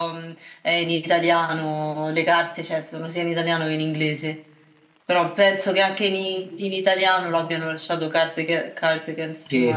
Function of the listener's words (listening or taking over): taking over